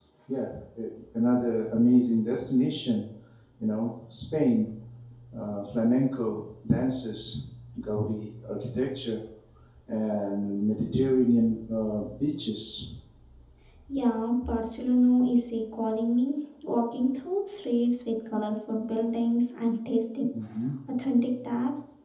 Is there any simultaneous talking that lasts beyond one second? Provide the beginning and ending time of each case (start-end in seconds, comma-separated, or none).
none